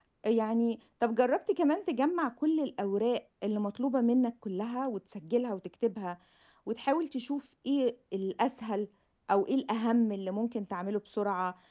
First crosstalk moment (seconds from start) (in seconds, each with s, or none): none